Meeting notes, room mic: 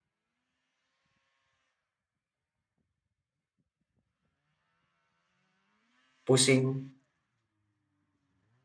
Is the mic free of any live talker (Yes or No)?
No